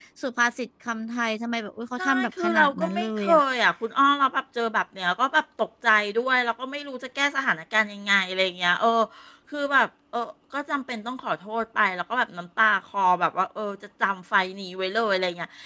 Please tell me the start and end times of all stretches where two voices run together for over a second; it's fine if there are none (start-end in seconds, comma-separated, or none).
2.0-3.4